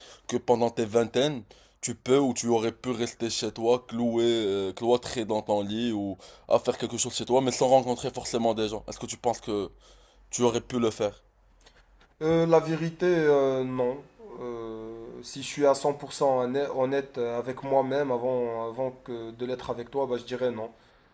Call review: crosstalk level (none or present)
none